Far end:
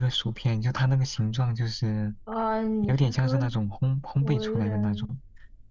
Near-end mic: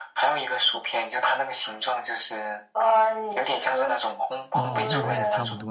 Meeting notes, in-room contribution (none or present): present